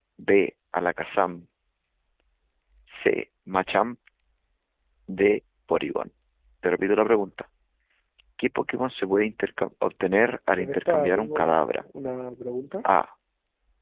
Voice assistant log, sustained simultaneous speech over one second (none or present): present